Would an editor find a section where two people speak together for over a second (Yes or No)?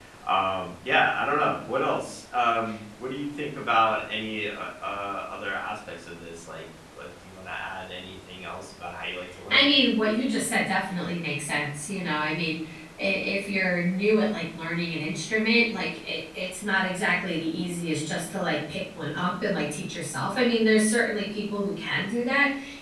No